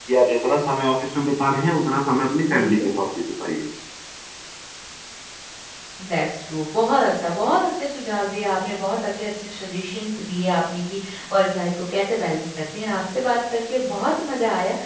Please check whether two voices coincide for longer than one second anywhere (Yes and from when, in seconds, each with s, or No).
No